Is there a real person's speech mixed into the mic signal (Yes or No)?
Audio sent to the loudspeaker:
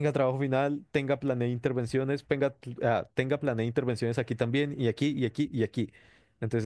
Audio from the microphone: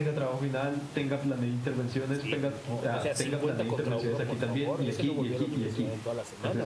Yes